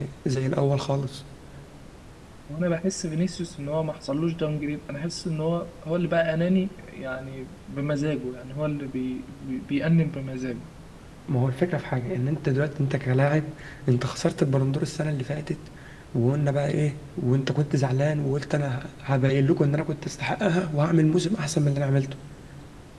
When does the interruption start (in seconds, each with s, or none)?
none